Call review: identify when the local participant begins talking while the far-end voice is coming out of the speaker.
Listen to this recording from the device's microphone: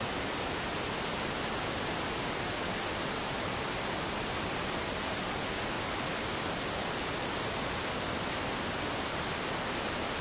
none

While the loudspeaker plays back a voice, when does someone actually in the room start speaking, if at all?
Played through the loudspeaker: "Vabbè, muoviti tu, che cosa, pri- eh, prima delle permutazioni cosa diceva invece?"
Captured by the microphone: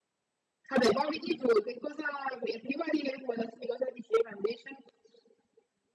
none

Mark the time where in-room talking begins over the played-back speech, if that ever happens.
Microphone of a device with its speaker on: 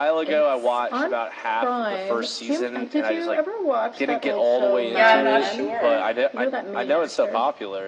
4.9 s

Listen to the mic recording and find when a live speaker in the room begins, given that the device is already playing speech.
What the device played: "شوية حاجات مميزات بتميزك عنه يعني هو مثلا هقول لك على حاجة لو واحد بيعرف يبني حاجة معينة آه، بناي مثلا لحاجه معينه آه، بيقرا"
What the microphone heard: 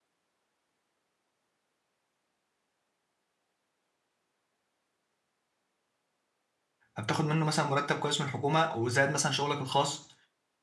7.0 s

